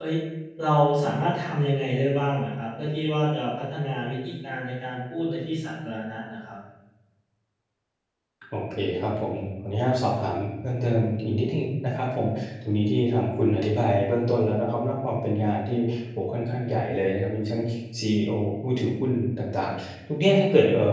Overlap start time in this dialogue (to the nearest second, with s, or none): none